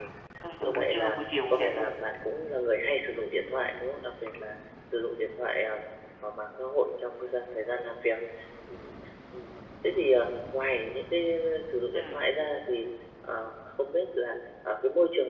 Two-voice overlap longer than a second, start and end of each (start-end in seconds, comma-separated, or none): 0.6-2.0